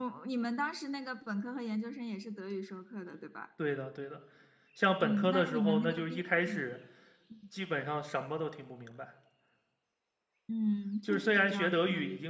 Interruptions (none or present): present